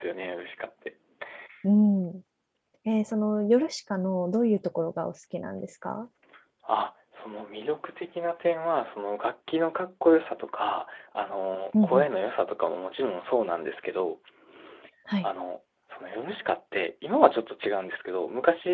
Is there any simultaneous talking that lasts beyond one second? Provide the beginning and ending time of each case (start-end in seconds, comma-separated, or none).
none